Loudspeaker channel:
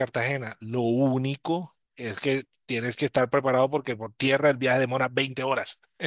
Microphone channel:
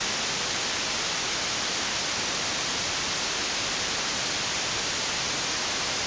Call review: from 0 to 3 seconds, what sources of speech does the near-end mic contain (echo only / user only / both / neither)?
neither